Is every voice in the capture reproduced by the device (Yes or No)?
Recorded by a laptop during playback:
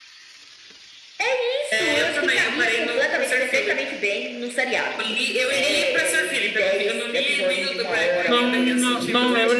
No